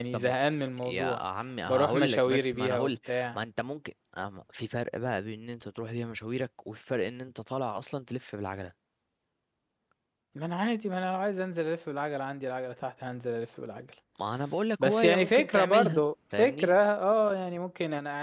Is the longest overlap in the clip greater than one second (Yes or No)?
Yes